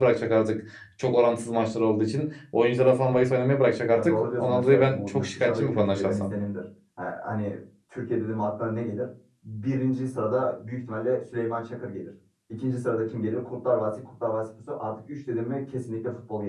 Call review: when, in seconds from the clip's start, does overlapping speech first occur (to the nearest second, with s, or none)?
4 s